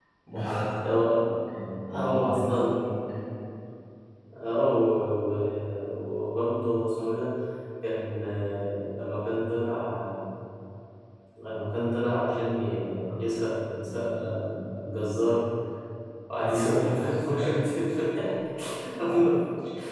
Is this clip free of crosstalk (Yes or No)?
No